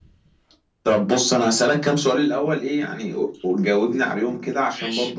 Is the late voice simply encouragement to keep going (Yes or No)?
Yes